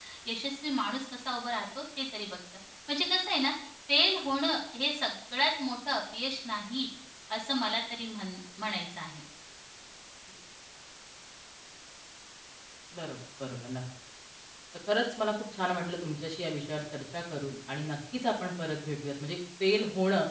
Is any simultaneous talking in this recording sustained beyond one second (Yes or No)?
No